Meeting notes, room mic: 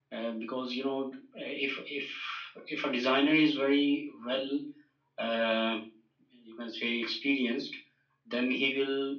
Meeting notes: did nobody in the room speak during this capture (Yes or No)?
Yes